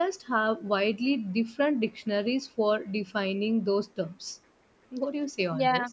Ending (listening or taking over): taking over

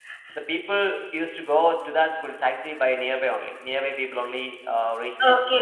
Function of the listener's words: taking over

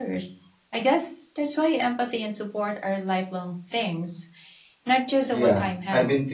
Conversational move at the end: taking over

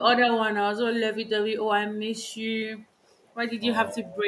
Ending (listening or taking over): listening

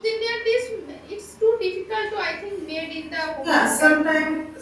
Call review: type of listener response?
taking over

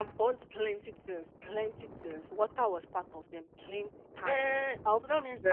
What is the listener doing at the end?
taking over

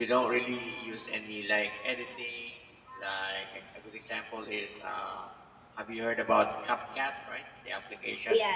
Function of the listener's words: taking over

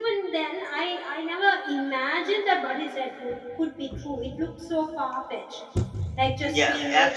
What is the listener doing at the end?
taking over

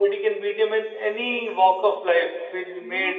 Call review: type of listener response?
listening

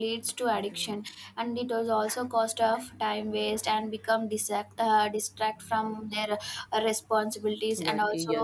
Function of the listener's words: listening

